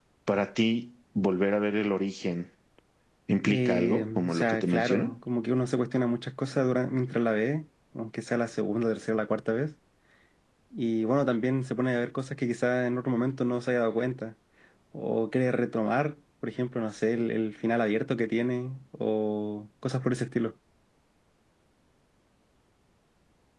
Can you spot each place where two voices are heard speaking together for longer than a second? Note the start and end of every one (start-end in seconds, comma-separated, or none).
3.5-5.2